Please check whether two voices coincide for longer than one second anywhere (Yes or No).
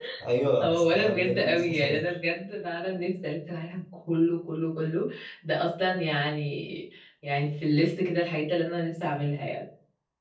Yes